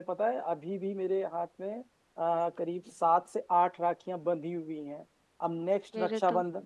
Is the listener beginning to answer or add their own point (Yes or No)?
No